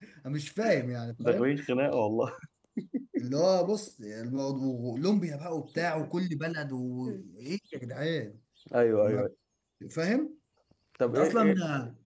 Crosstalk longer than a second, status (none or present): none